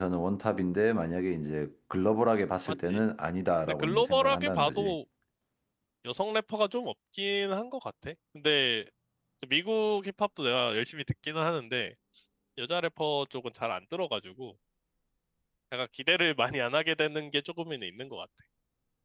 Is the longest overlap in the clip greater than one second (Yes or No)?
Yes